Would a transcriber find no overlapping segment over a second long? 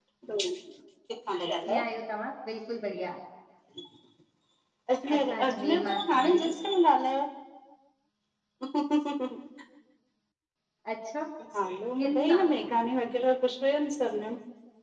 No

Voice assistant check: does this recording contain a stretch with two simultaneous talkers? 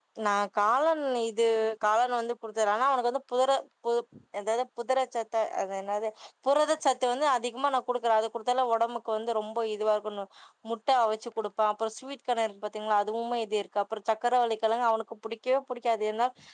No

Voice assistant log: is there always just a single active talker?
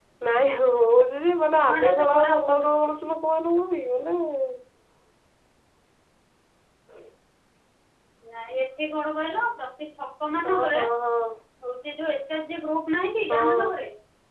No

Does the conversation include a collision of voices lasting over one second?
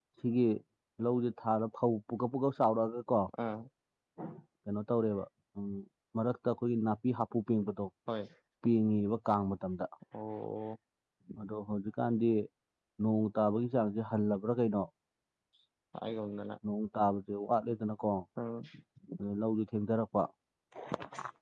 No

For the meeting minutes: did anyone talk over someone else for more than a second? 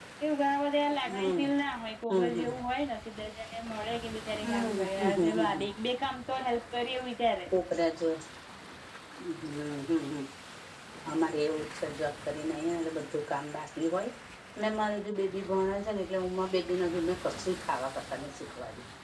Yes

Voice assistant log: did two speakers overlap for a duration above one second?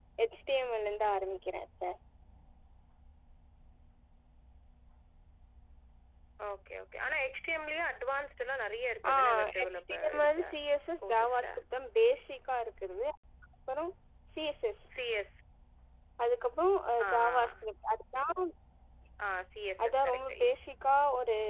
Yes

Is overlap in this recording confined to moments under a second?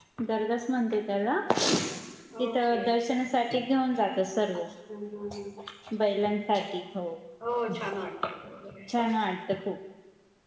Yes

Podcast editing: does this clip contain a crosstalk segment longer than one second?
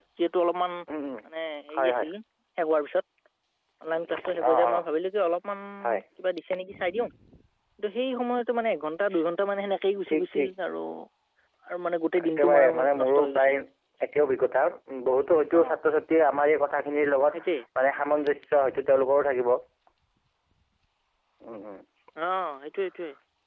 Yes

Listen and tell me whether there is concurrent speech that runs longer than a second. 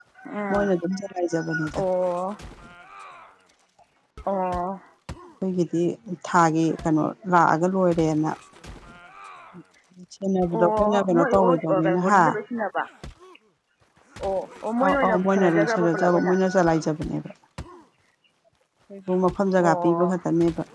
Yes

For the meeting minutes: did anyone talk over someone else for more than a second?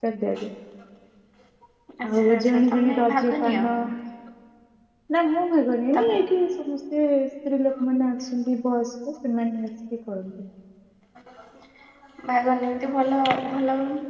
Yes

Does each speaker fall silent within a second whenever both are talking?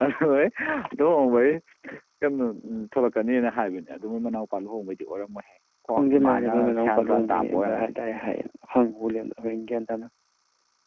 No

